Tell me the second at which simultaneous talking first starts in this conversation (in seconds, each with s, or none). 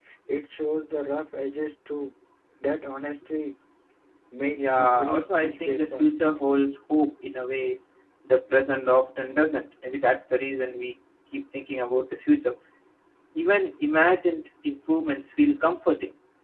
4.5 s